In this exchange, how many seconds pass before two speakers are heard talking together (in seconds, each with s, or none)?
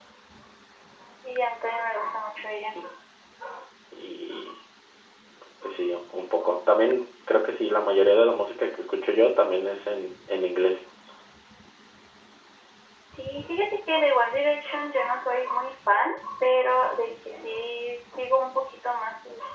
none